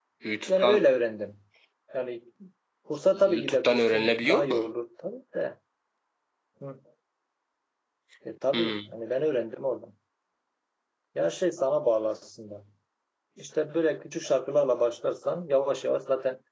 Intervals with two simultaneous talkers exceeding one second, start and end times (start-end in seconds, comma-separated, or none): 3.1-4.7